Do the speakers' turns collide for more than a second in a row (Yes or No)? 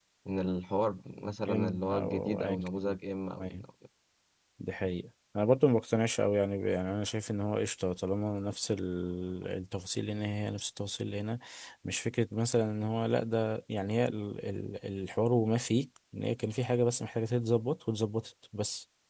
Yes